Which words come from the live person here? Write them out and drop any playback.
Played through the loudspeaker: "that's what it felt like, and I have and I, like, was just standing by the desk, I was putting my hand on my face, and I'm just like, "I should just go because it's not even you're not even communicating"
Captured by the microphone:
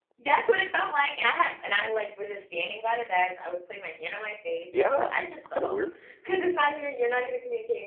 Yeah, that's kinda weird.

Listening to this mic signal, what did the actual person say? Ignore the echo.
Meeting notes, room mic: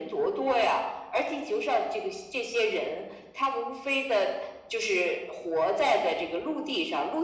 none

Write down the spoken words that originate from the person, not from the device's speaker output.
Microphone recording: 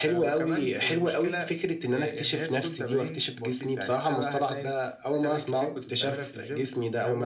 none

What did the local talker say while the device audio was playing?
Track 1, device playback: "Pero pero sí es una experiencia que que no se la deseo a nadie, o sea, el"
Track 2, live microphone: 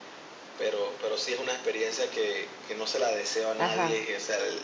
Ajá,

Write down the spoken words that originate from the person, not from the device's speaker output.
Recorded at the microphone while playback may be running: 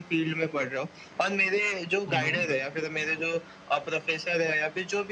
हुँ, हुँ।

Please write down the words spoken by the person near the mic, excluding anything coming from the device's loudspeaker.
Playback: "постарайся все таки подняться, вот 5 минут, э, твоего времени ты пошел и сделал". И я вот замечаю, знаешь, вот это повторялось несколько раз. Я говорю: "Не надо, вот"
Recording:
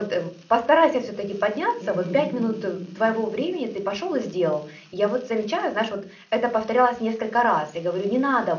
Мгм.

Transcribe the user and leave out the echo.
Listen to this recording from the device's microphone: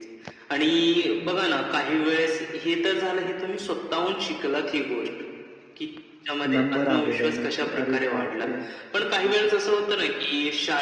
नंबर आलेला आहे म्हणजे अरे बापरे! हं, हं.

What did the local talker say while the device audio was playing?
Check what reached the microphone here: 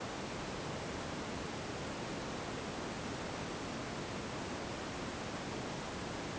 none

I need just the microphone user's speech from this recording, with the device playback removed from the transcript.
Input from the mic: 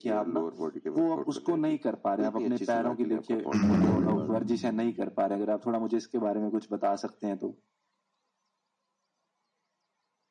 हुँ, हुँ।

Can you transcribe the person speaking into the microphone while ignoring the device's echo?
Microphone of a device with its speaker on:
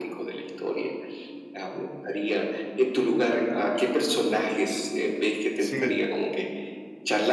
Sí.

